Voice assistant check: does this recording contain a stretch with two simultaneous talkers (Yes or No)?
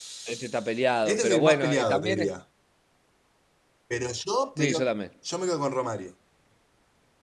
Yes